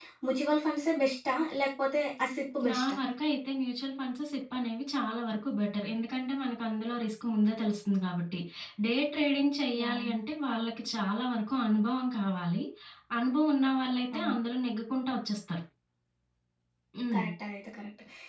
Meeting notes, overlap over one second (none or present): none